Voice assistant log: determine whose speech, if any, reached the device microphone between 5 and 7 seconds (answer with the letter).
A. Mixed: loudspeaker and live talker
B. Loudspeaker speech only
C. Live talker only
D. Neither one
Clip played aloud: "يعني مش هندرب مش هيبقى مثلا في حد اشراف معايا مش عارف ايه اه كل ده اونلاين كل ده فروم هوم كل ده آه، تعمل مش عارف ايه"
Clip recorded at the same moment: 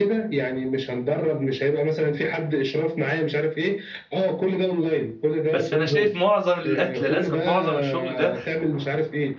A